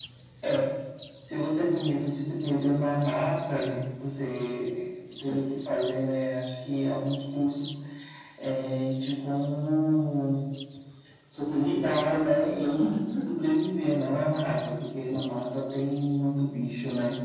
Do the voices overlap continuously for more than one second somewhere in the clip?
Yes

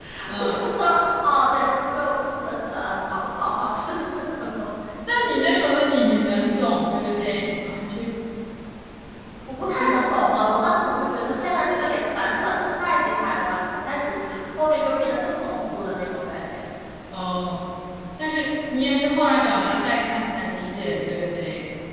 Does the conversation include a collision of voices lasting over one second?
No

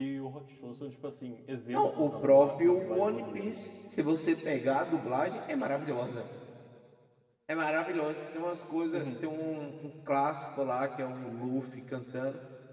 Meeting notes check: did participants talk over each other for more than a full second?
Yes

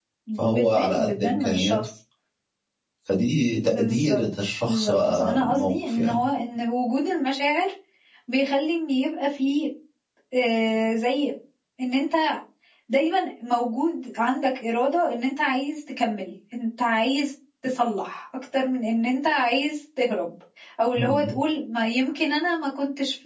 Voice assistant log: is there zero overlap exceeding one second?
No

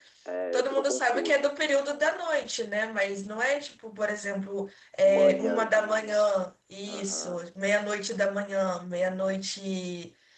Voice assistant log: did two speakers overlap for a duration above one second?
Yes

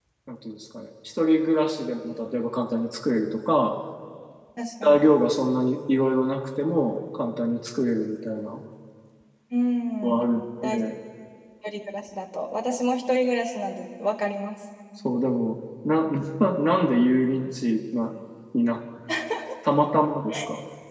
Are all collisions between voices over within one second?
Yes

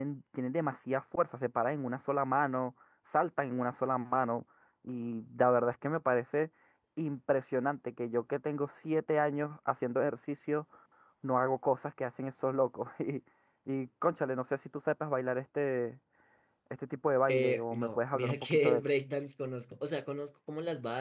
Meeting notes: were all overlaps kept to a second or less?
No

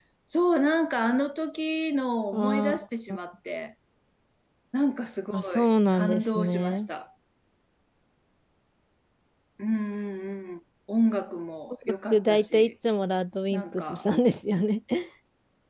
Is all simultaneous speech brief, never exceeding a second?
No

